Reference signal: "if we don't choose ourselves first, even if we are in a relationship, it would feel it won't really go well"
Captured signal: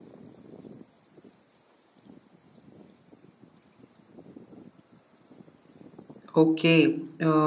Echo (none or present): none